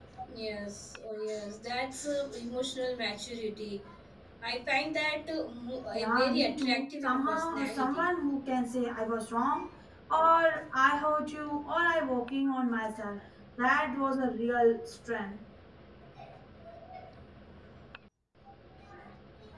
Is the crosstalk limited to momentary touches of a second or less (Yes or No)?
No